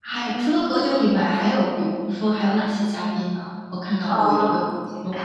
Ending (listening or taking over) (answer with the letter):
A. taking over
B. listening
A